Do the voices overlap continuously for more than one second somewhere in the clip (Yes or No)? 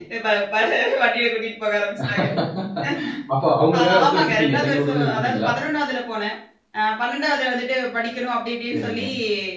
Yes